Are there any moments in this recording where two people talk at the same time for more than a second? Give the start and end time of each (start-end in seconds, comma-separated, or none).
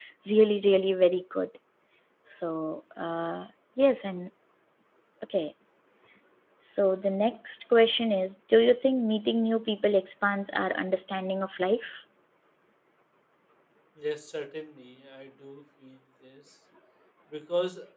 none